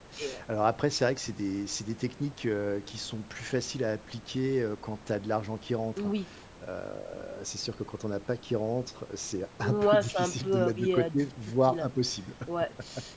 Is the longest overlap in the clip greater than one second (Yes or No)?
Yes